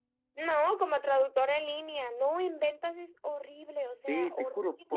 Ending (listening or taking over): taking over